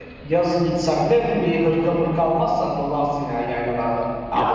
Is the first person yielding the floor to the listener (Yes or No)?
Yes